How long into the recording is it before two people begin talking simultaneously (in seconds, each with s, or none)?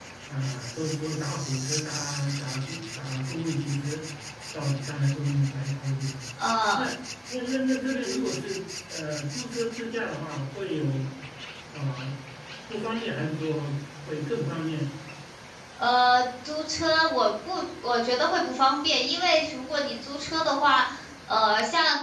none